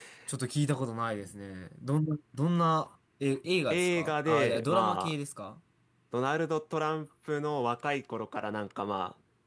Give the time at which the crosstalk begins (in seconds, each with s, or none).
3.7 s